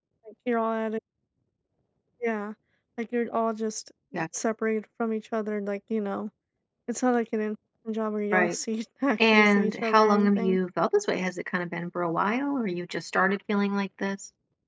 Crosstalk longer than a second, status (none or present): present